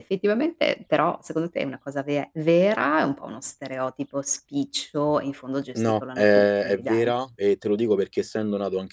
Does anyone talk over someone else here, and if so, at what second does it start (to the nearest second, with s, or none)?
6 s